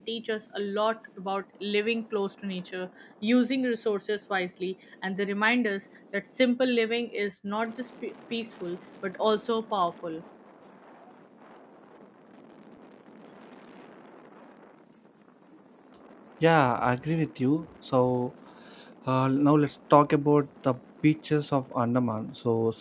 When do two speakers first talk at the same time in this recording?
none

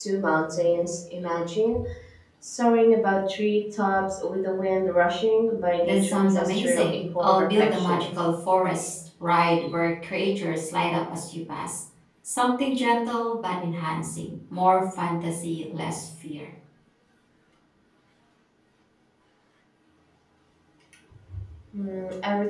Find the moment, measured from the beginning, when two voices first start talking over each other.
6 s

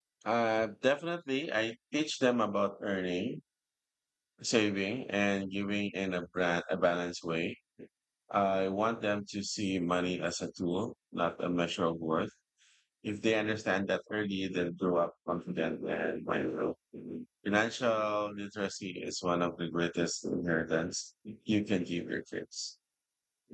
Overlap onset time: none

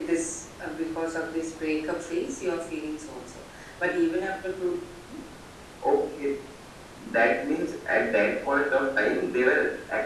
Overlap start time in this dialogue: none

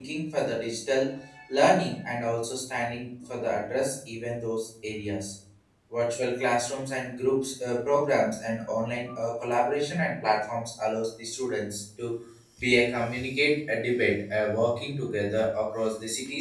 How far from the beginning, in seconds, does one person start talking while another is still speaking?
none

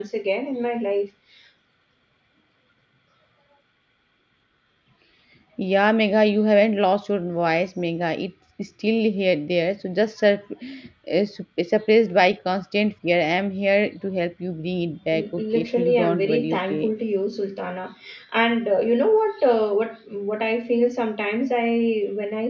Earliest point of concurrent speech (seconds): 15 s

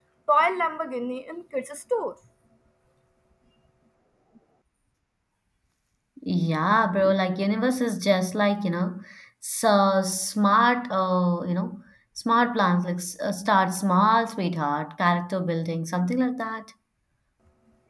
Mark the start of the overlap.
none

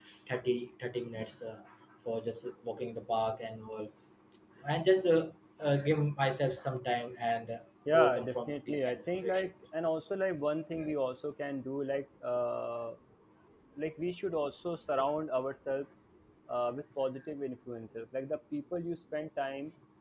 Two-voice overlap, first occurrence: 8 s

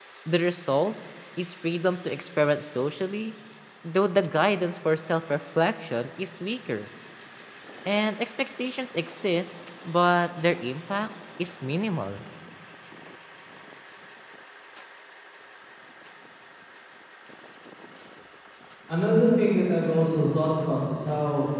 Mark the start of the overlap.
none

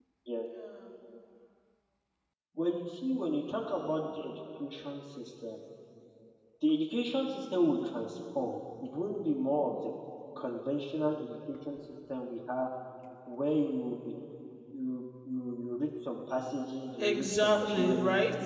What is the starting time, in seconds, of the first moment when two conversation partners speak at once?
17 s

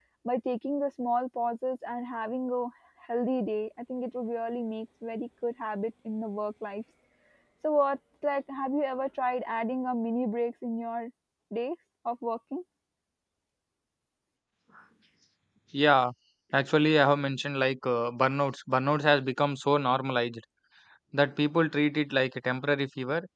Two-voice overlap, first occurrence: none

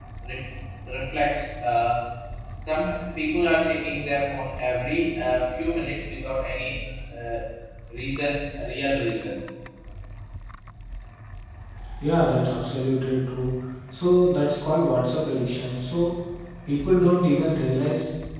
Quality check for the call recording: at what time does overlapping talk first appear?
none

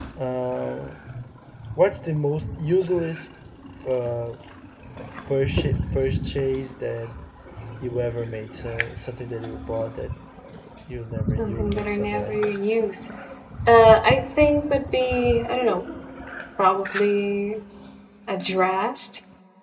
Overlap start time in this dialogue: 11 s

